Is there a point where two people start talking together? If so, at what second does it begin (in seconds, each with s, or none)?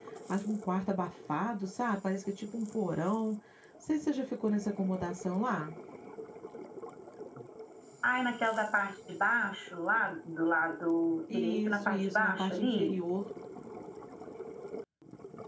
11.3 s